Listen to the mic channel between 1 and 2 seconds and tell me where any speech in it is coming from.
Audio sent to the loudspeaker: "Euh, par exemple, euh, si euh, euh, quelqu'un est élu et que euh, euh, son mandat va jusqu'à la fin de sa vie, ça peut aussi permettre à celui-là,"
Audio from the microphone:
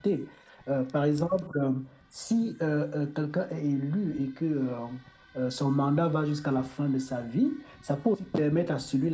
echo only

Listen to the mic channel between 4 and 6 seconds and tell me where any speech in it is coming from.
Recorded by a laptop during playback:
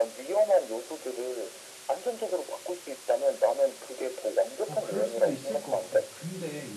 both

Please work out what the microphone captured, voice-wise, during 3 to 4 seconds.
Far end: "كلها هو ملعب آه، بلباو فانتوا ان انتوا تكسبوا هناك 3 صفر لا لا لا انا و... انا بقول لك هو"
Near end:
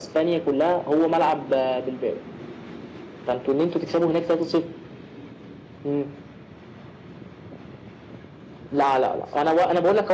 echo only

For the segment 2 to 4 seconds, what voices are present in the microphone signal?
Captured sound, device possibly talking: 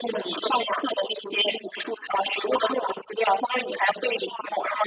echo only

